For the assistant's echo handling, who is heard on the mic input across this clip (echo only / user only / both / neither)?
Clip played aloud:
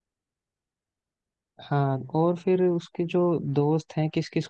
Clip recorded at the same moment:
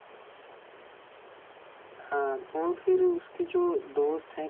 echo only